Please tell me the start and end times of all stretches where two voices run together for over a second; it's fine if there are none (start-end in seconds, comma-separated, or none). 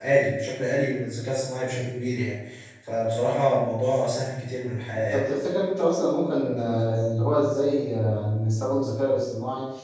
none